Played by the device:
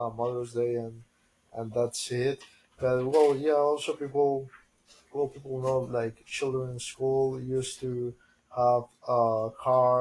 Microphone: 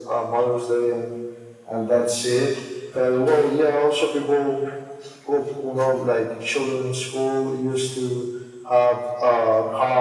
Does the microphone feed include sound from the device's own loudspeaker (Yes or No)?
Yes